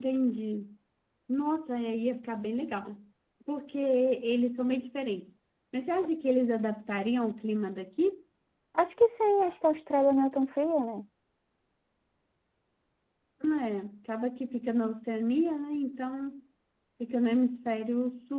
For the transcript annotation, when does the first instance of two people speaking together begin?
none

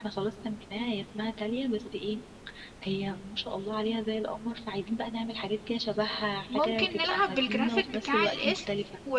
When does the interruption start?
7 s

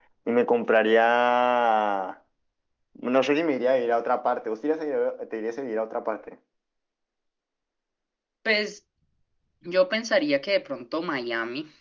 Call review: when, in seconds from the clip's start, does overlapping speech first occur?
none

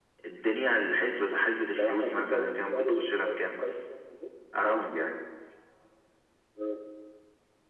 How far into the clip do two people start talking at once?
2 s

